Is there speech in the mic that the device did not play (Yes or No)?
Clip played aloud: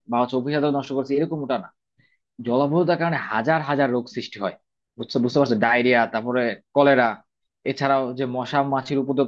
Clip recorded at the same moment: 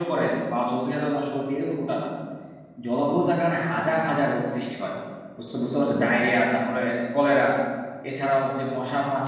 No